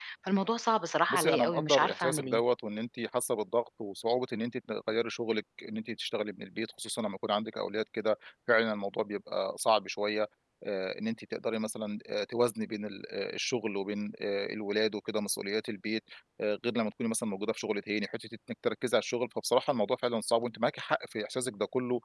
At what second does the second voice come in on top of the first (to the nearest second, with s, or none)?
1 s